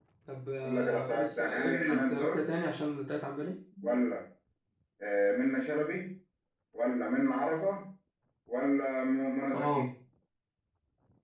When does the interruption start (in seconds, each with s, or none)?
0.6 s